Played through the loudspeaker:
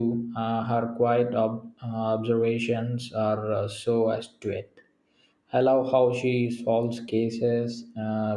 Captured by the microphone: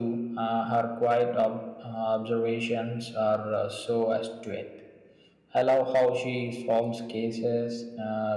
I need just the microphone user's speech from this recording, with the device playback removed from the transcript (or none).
none